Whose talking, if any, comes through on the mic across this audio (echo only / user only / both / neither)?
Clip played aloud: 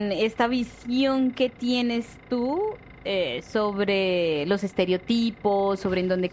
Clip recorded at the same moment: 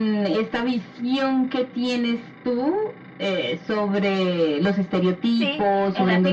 both